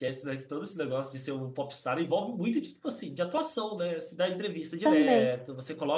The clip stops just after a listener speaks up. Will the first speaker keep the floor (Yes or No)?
Yes